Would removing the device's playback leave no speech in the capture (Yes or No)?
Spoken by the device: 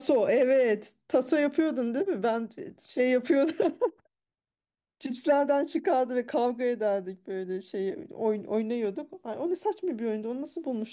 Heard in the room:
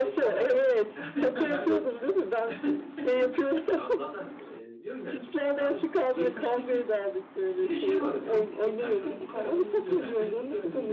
No